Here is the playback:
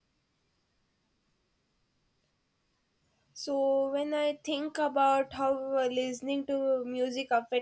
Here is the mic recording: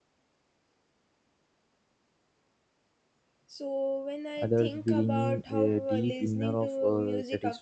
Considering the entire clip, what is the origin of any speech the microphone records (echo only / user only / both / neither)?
both